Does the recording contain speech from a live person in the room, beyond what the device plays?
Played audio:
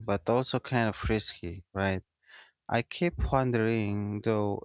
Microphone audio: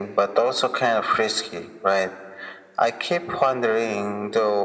No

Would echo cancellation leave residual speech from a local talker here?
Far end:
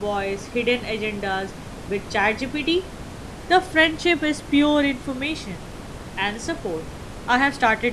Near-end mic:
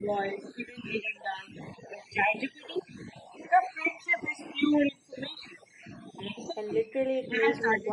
Yes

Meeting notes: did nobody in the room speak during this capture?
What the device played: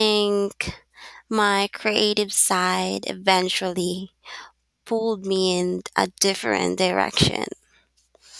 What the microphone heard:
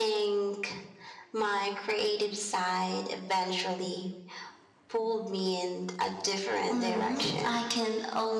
No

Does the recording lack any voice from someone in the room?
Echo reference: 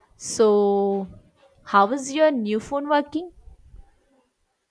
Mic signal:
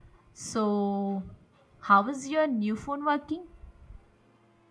Yes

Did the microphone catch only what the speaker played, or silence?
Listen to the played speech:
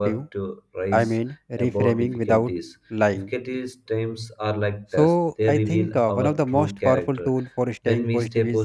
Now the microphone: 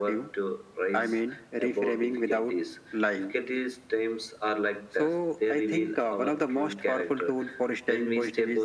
Yes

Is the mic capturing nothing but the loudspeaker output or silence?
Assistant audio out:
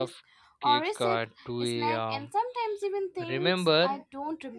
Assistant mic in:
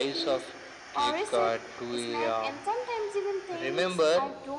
Yes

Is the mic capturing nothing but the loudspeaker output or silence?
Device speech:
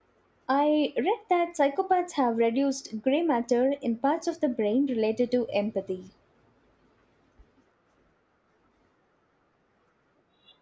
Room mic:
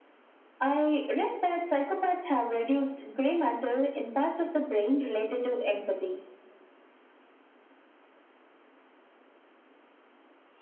Yes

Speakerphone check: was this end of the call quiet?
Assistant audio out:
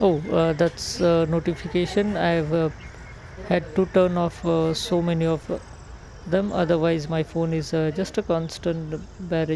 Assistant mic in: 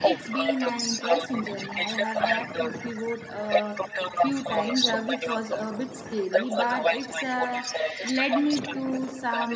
No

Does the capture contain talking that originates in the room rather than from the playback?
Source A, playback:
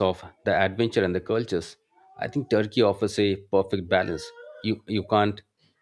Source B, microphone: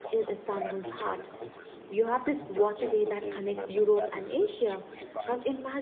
Yes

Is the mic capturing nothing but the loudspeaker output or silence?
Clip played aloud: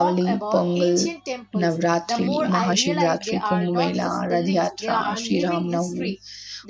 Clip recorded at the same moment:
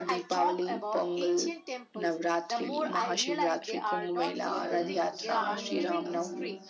No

